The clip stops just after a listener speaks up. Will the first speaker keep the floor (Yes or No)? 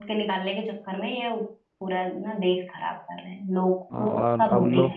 No